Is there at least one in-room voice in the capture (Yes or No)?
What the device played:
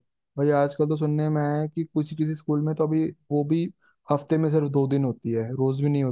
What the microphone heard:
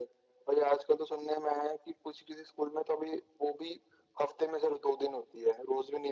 No